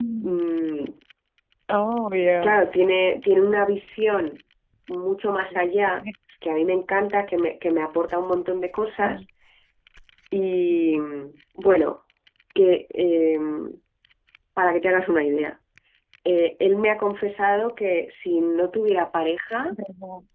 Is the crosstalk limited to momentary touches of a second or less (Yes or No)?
Yes